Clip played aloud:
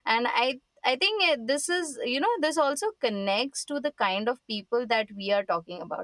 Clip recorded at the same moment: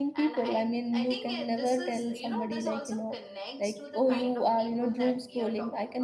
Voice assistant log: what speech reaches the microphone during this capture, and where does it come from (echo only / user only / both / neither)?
both